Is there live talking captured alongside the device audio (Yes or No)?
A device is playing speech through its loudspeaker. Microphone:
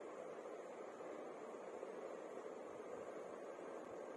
No